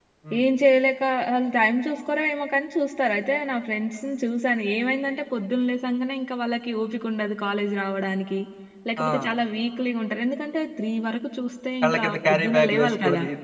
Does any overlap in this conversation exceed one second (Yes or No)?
Yes